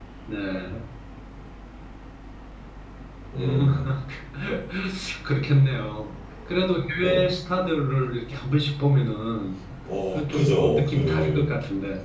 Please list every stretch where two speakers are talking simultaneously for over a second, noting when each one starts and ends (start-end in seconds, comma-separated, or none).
10.1-11.5